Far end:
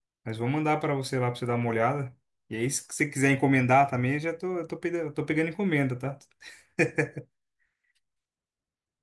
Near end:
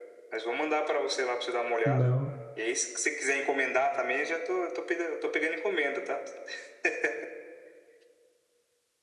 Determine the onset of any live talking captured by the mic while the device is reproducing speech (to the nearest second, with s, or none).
2 s